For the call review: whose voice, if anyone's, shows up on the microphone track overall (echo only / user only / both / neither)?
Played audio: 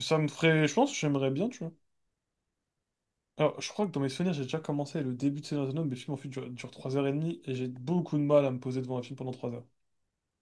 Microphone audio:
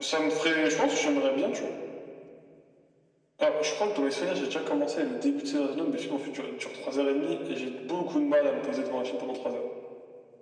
echo only